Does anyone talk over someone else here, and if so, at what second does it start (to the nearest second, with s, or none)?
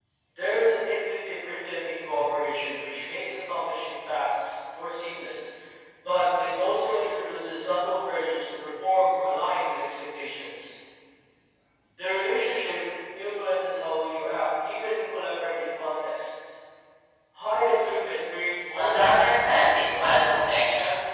19 s